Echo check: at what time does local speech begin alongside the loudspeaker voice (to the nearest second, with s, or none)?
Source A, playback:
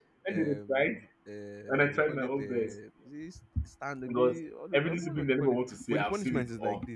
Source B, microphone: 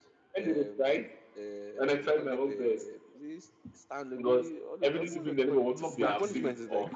6 s